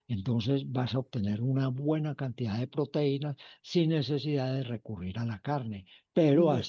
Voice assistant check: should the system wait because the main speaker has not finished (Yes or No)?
Yes